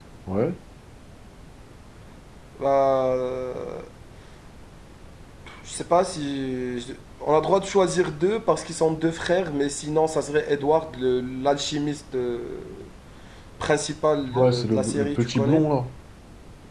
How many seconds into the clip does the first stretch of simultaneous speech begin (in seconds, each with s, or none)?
14.3 s